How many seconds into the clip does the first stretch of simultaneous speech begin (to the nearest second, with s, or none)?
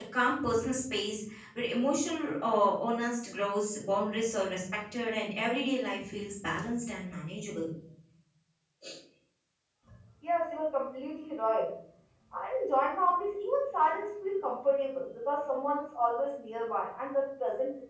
none